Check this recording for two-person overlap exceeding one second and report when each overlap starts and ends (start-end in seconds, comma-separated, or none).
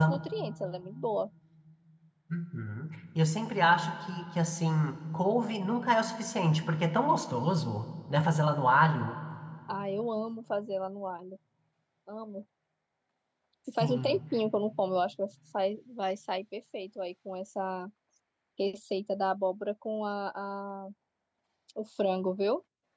none